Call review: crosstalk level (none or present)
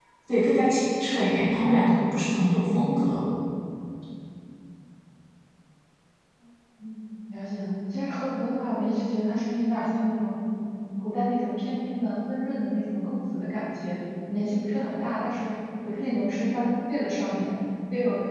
none